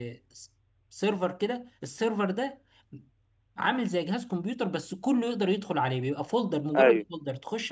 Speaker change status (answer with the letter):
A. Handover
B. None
B